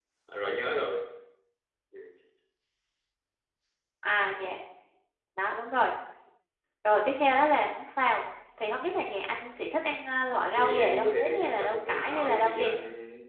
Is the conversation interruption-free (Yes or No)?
No